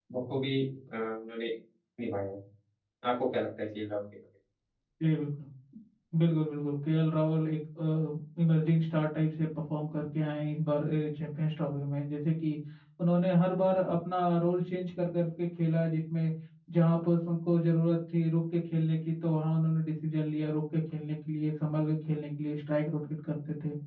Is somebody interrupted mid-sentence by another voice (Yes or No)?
No